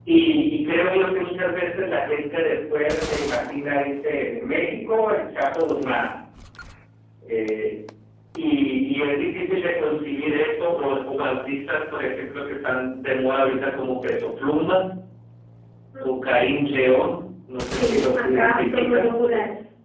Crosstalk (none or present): present